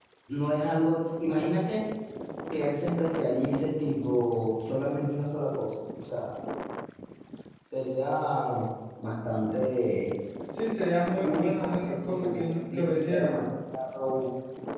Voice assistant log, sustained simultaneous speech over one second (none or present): present